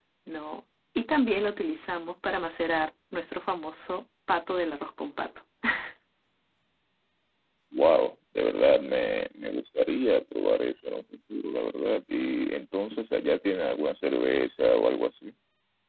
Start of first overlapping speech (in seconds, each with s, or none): none